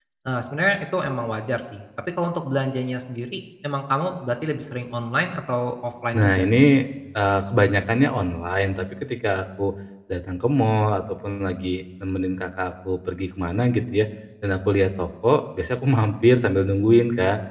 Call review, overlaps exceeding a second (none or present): none